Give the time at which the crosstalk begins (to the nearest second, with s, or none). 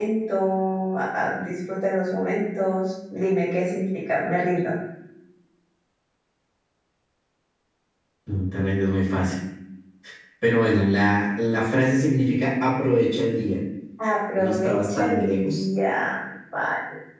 14 s